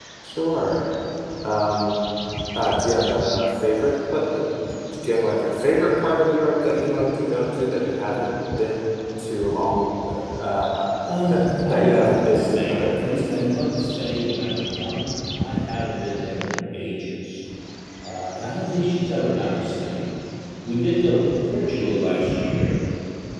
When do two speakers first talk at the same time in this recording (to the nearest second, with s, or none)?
11 s